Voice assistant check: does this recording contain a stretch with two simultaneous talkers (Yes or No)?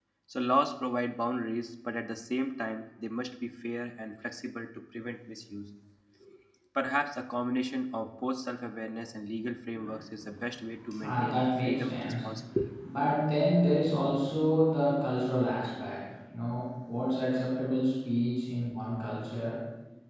Yes